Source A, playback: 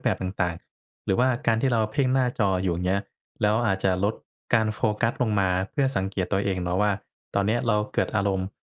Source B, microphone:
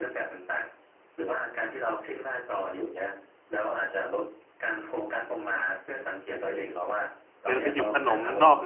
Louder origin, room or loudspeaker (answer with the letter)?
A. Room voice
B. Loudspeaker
A